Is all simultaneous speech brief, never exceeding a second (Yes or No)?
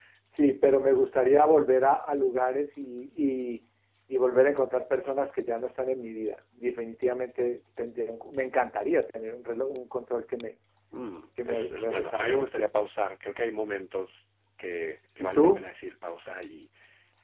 No